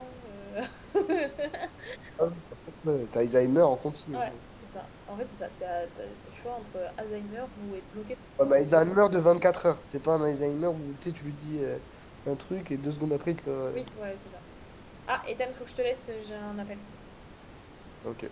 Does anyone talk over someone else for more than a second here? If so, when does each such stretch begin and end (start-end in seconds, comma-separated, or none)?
none